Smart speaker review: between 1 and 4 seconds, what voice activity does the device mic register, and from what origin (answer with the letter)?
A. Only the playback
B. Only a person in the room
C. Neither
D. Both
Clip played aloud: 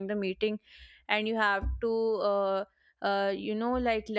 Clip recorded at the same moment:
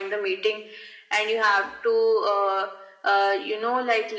A